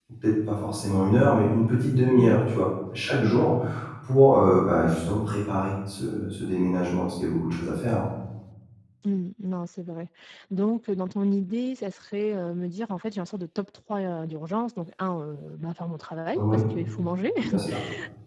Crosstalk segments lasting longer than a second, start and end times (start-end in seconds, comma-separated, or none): none